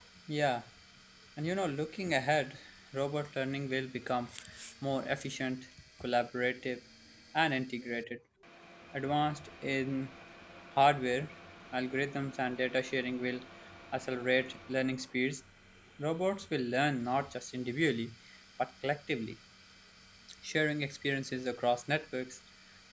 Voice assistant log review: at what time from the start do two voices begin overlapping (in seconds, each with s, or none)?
none